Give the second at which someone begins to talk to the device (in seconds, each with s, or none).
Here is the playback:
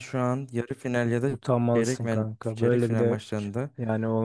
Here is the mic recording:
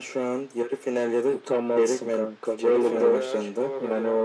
1.6 s